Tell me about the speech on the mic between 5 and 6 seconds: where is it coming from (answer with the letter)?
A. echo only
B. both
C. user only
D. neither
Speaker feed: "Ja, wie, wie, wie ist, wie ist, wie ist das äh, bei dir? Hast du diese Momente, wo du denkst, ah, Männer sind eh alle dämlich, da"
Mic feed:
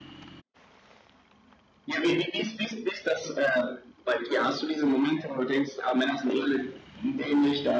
A